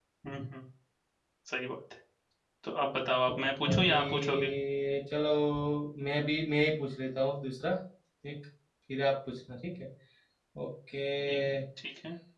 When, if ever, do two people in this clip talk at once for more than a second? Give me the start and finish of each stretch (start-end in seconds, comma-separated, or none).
3.3-4.5